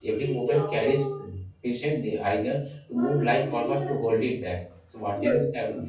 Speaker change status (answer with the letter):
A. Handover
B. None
A